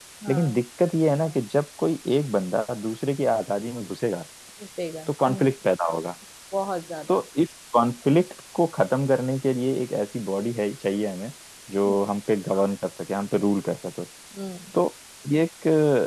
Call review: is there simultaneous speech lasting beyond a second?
No

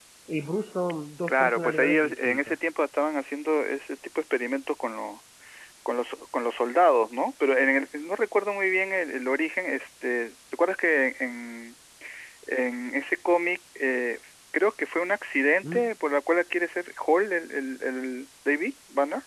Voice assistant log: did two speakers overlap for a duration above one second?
Yes, from 1.3 s

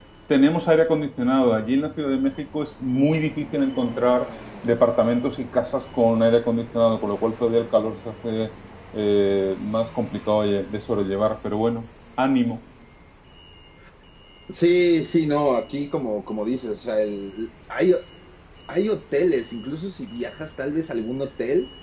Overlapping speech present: No

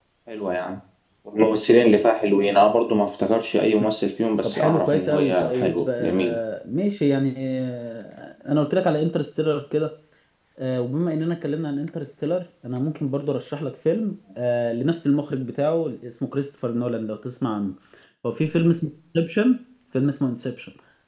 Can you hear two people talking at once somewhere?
Yes, from 4.4 s

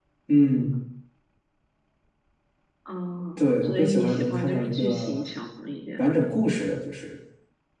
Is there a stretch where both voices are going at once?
Yes, from 3.4 s

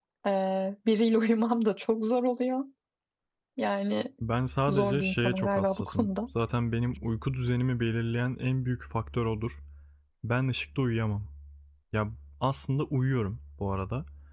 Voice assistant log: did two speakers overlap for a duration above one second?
Yes, from 4.7 s

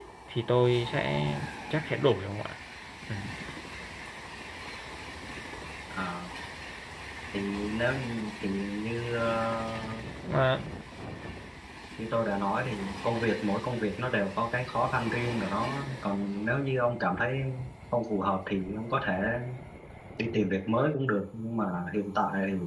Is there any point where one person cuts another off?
No

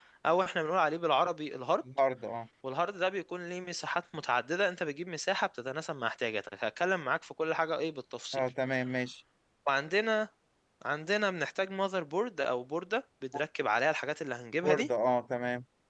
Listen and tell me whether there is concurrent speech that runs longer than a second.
No

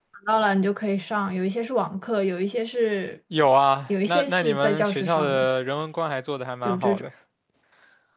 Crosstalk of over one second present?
Yes, from 4.1 s

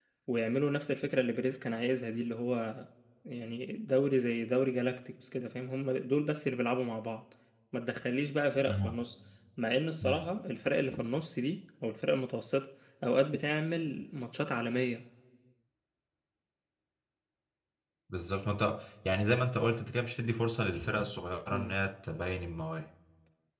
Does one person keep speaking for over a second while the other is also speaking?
No

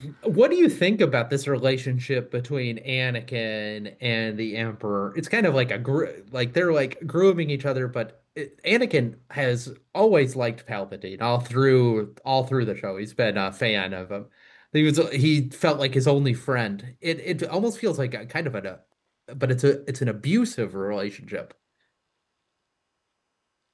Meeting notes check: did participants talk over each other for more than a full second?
No

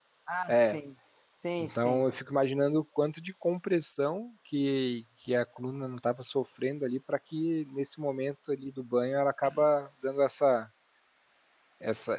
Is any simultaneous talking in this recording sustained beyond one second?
No

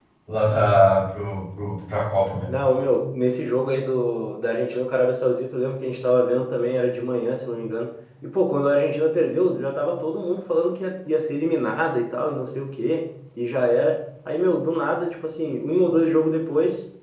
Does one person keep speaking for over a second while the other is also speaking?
No

